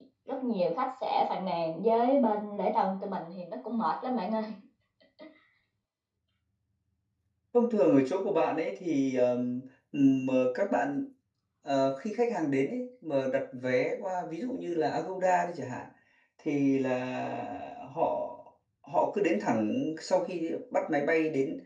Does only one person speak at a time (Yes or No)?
Yes